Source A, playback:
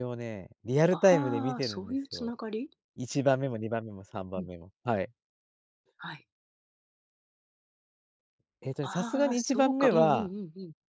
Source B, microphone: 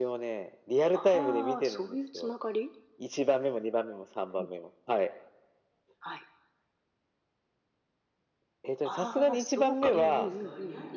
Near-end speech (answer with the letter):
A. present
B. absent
A